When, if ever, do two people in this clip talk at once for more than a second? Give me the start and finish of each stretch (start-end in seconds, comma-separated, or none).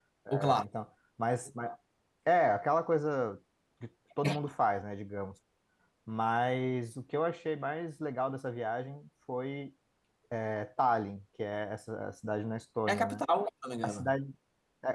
none